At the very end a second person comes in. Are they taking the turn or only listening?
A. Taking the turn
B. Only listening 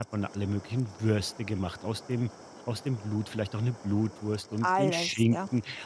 B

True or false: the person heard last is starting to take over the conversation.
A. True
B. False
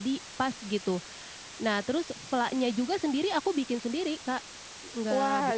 A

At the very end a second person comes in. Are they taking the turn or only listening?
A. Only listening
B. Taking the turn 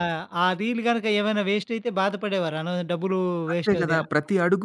B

